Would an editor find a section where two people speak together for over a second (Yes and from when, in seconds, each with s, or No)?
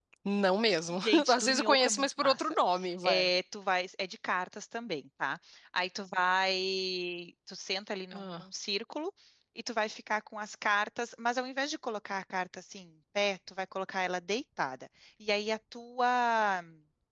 Yes, from 0.9 s